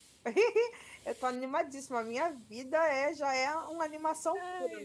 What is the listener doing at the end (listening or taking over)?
listening